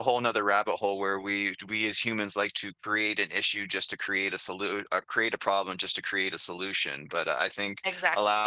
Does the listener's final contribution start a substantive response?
No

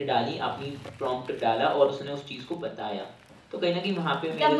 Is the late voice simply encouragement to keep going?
No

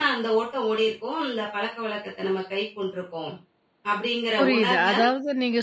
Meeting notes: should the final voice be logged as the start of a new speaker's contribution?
Yes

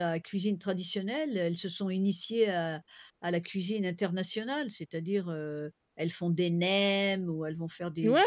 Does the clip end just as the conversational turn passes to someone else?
Yes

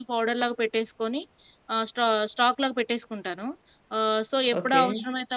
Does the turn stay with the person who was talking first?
Yes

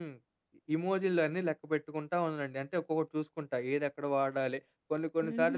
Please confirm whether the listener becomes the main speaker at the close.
Yes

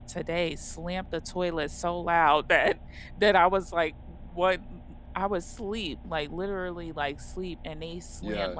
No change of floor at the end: Yes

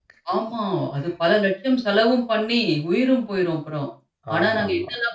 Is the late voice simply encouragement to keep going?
Yes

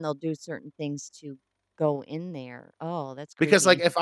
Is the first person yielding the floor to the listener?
Yes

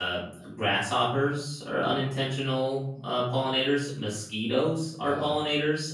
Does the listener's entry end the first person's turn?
No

